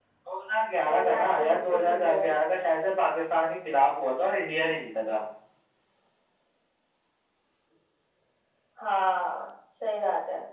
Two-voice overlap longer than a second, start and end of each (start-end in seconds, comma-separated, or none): 0.9-2.3